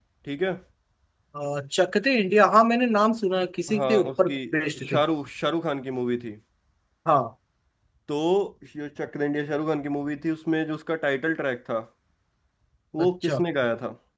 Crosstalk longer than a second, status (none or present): present